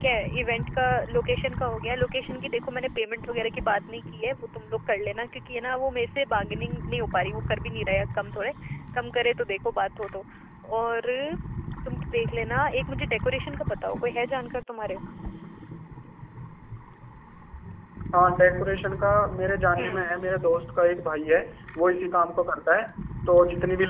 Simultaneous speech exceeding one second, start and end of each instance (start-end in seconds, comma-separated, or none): none